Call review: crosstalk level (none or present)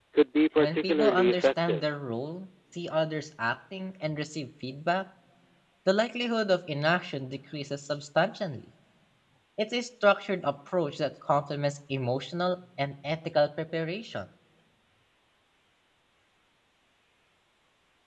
present